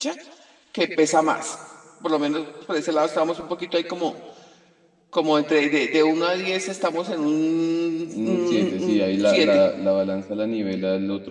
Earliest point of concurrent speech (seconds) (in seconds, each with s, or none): 8.1 s